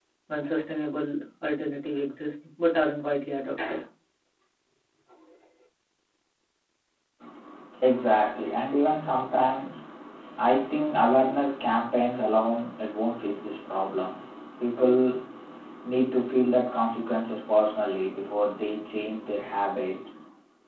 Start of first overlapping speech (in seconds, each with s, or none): none